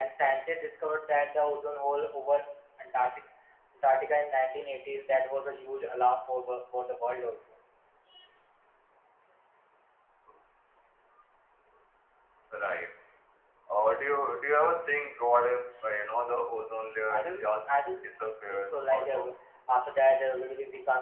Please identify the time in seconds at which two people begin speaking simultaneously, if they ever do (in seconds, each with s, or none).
17.1 s